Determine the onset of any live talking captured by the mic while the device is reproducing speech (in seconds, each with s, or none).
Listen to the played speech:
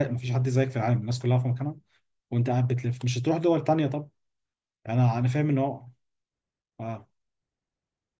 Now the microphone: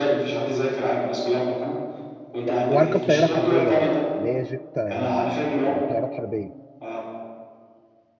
2.5 s